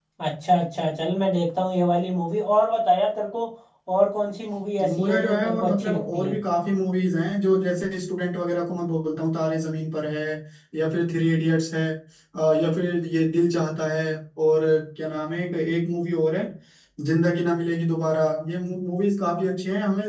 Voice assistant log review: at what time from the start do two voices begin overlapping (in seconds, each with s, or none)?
4.8 s